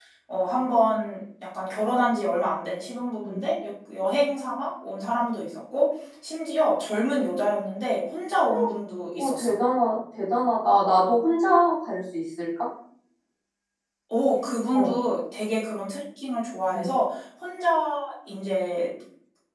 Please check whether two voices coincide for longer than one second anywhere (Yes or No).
No